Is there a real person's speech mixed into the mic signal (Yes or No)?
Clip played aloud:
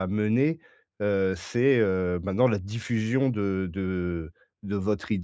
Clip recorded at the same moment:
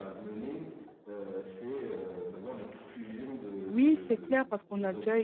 Yes